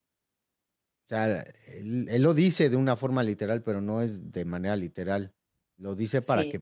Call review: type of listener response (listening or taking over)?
listening